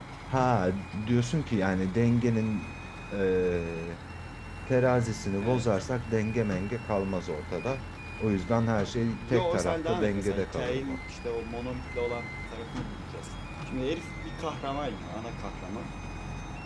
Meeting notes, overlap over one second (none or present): present